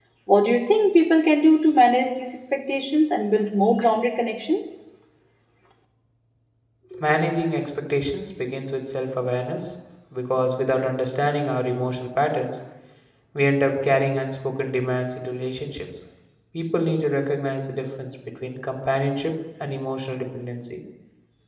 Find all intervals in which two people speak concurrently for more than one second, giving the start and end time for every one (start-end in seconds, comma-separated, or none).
none